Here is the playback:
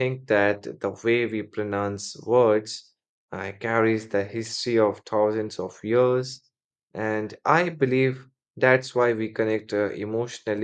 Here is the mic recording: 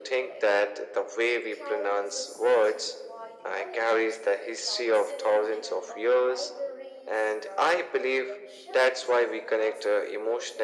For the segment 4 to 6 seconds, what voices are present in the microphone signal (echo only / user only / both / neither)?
both